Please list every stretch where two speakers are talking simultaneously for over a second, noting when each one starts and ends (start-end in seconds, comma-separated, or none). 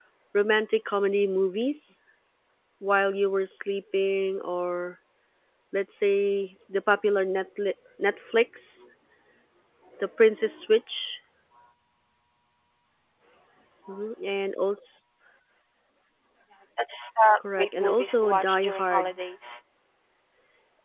17.6-19.1